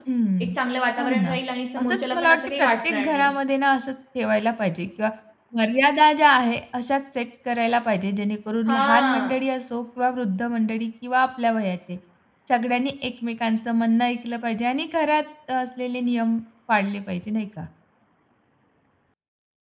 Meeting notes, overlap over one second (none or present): present